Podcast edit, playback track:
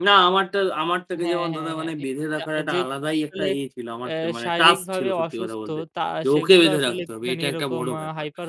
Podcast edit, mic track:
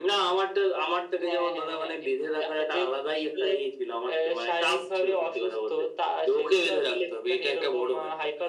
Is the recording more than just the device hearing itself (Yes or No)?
No